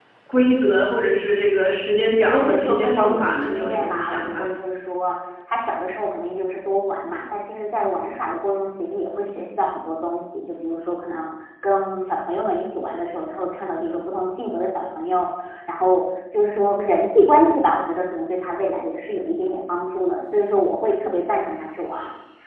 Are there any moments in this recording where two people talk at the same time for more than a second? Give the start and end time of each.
2.2-4.4

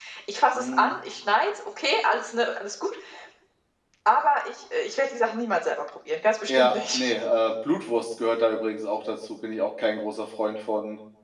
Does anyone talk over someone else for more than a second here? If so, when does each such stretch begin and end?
none

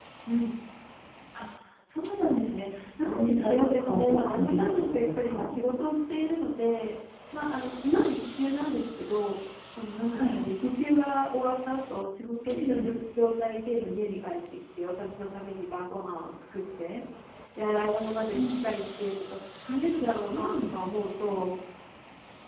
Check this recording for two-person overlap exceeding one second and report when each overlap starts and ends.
3.0-5.5

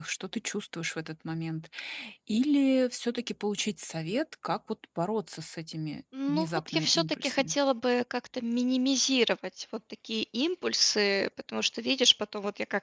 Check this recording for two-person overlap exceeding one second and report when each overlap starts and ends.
6.3-7.5

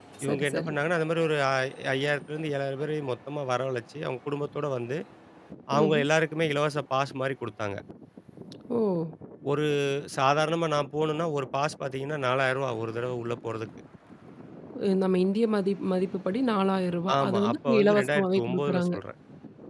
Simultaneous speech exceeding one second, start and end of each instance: 17.2-18.9

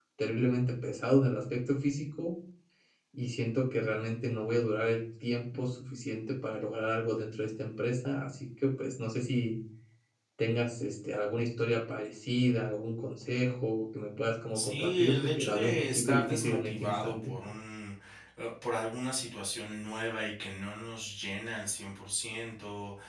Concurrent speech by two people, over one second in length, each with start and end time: 14.5-17.3

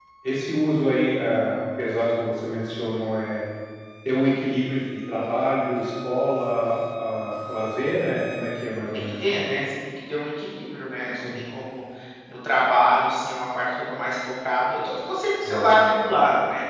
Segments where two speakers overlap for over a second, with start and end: none

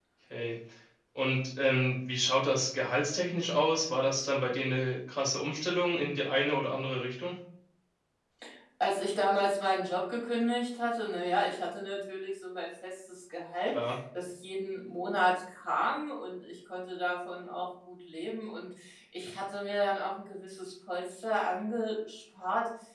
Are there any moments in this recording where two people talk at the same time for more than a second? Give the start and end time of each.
none

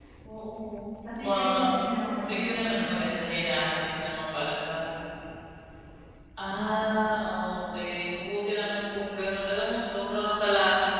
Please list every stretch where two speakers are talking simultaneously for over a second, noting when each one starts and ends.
2.3-3.8

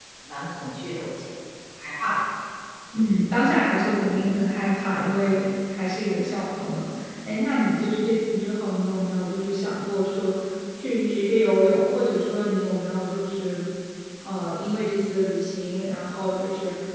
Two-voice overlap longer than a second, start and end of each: none

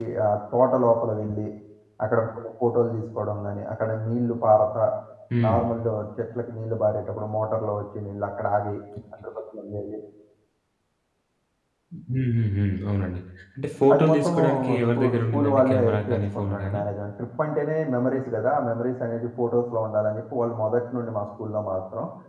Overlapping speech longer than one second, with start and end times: 13.9-16.8

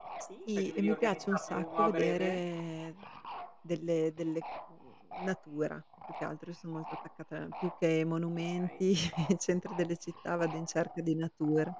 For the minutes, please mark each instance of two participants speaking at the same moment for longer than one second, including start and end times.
0.6-2.4

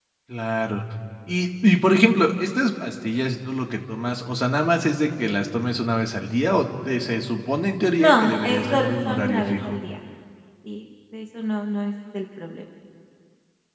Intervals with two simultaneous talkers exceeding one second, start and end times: 8.0-9.7

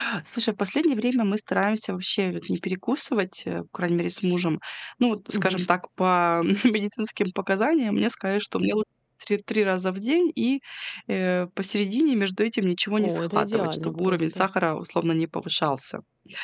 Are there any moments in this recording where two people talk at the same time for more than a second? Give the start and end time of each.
13.0-14.5

